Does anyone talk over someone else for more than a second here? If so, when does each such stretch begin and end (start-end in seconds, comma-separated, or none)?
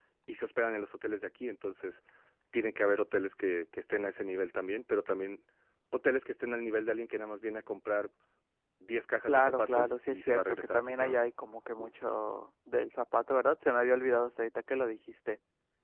9.3-11.3